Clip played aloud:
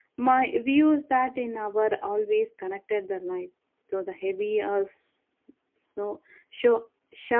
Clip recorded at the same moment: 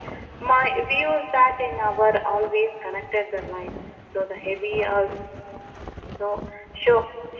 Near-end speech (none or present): none